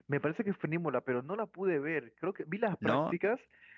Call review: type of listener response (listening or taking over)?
listening